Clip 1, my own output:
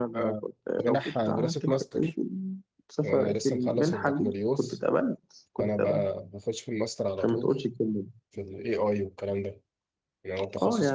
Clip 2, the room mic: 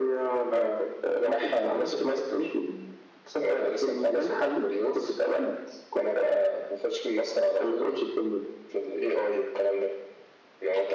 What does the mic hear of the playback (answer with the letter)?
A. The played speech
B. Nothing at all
A